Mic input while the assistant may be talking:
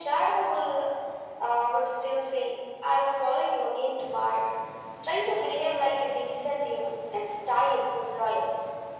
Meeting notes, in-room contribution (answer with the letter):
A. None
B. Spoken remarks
A